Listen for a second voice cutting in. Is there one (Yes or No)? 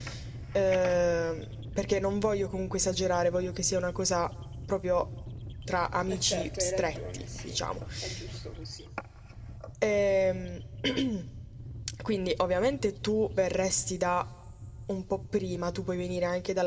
Yes